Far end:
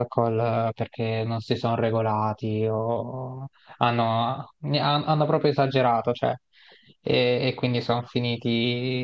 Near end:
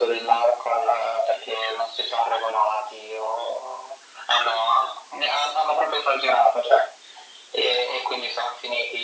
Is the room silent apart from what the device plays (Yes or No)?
Yes